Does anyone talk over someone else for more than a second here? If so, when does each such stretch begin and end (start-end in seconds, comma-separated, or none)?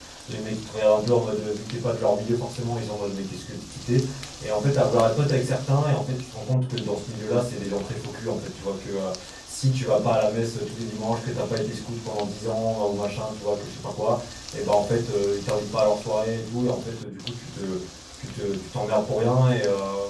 none